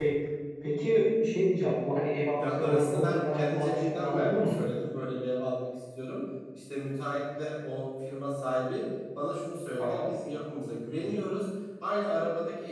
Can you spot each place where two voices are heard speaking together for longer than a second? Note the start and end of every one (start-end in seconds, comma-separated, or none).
2.4-4.6